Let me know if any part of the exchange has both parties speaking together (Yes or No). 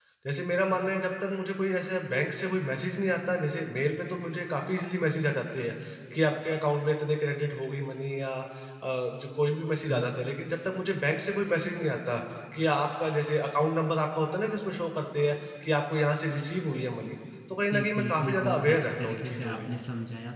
Yes